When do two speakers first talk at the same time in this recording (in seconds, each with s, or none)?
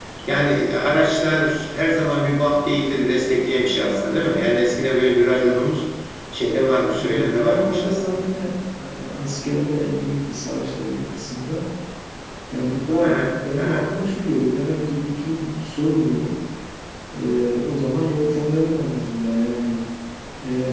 7.0 s